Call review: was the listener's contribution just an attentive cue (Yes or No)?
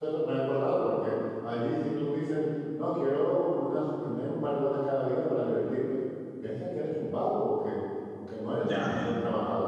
Yes